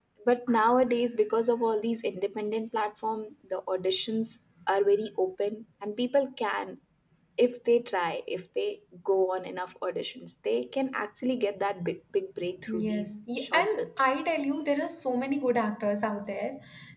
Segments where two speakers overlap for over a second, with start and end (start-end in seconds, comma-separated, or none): 12.7-14.1